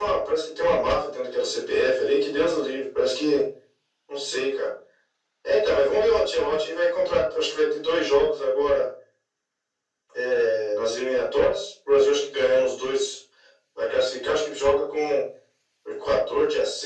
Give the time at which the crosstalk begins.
none

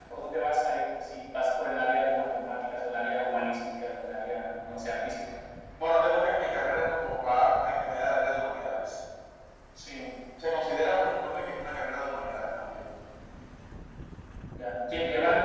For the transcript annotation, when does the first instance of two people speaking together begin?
none

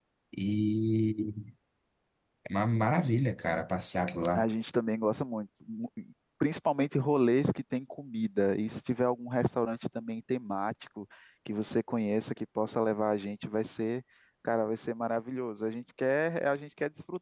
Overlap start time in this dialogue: none

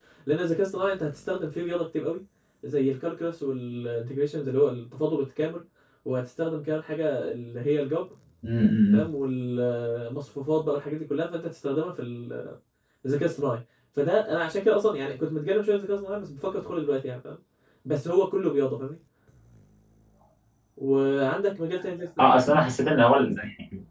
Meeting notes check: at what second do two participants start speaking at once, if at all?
none

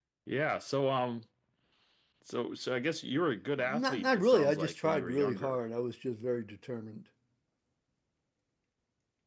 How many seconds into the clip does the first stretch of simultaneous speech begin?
3.6 s

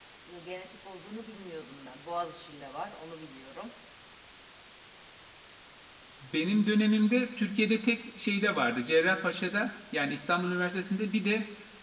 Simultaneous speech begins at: none

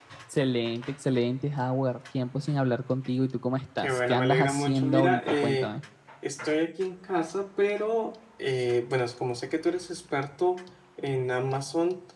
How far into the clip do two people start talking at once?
3.8 s

